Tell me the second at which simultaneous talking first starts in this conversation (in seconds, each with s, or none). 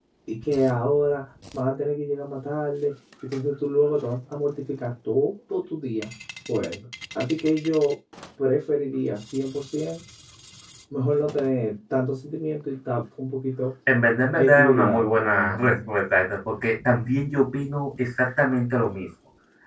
14.4 s